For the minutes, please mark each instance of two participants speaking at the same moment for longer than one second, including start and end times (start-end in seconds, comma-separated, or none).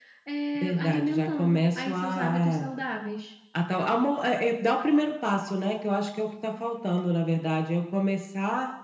0.6-2.7